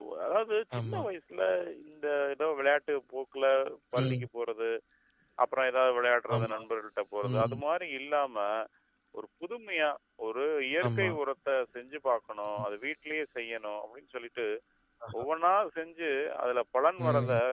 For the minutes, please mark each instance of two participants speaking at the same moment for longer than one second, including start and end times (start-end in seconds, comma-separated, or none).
none